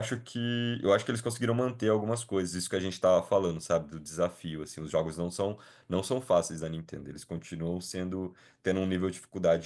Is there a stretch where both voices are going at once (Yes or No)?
No